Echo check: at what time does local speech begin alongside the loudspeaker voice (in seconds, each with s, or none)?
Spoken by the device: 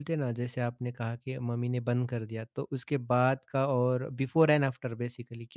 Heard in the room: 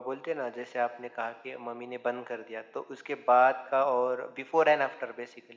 none